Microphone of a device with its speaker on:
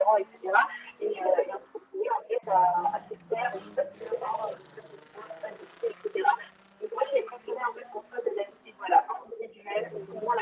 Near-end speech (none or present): none